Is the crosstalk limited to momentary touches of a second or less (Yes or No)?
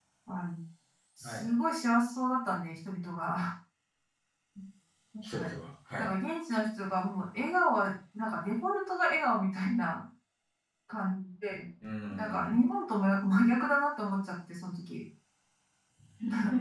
Yes